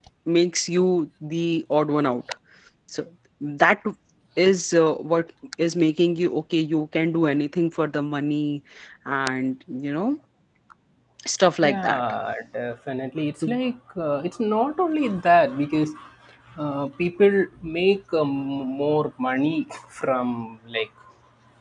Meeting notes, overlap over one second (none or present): none